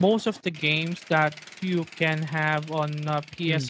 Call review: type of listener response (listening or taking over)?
listening